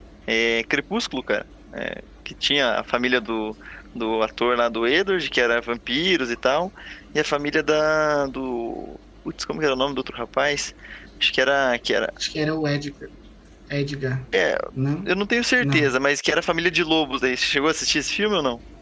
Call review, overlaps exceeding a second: none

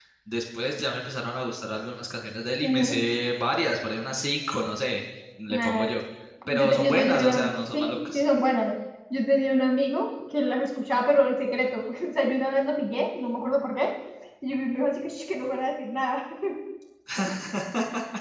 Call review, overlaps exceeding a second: present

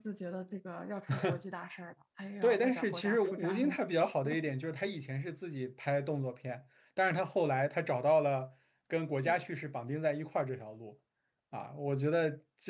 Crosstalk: present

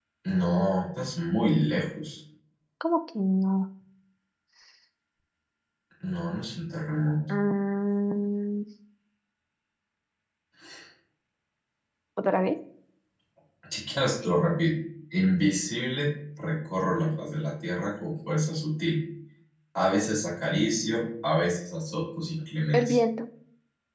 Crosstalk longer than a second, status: none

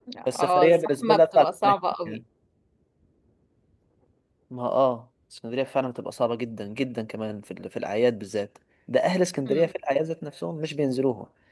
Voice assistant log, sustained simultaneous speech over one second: present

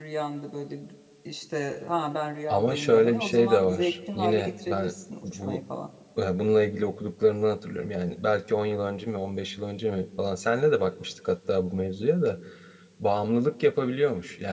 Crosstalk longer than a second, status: present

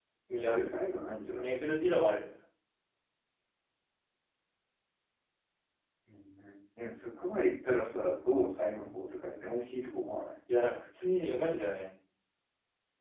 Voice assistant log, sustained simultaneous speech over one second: none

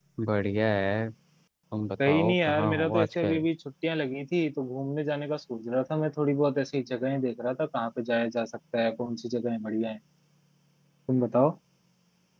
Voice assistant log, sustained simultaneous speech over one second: present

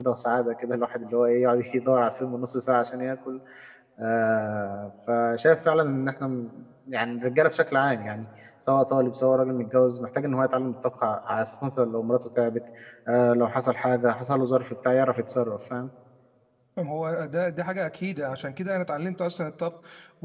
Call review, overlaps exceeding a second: none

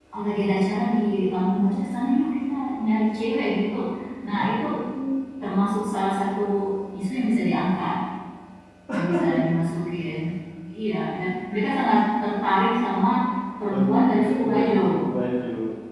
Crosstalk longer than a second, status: present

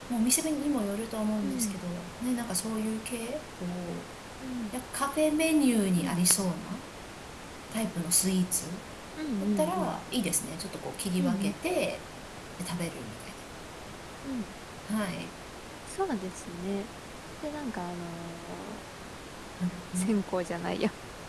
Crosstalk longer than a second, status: none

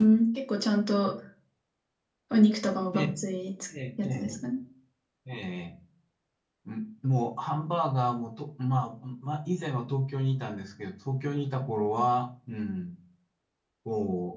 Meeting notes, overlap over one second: none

